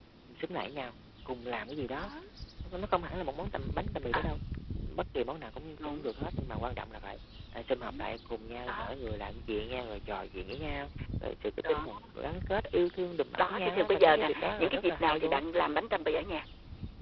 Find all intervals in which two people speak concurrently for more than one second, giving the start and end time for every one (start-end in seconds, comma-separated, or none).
13.4-15.4